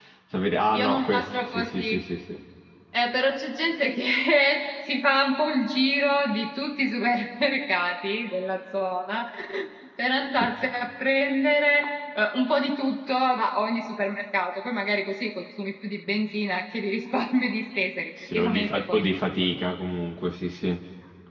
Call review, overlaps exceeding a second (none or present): present